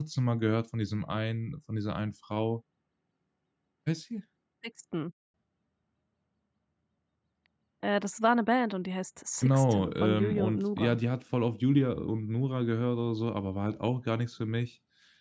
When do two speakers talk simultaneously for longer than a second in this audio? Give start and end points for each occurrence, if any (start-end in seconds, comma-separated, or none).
9.4-11.0